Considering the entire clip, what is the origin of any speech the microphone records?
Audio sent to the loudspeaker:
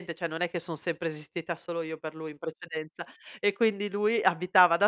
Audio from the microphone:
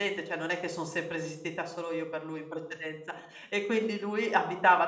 echo only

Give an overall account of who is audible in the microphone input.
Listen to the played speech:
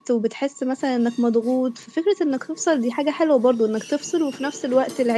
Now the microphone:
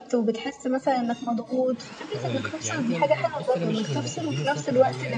both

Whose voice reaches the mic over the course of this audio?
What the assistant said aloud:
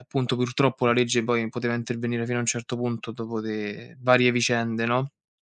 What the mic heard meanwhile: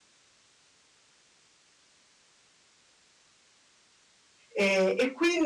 user only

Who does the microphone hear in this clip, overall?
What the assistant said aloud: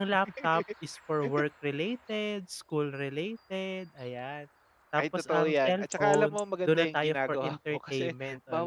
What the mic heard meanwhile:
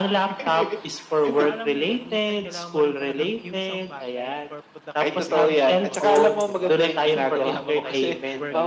both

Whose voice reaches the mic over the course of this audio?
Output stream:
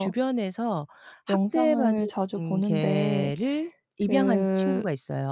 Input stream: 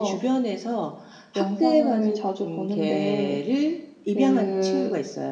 echo only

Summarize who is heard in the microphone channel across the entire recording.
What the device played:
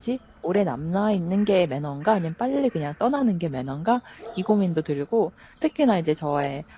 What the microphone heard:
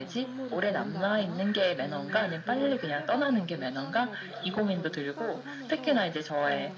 both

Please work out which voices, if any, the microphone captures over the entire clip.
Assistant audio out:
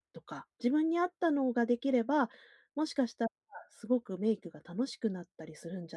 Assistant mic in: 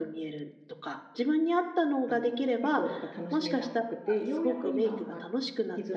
both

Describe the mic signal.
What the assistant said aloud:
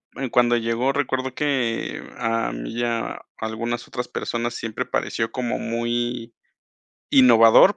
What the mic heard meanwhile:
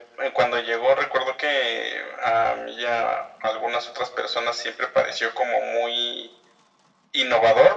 echo only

